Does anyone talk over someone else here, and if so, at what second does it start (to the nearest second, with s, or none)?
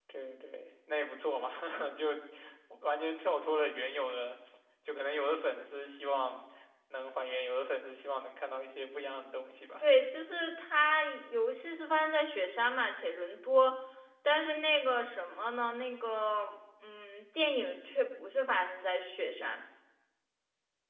none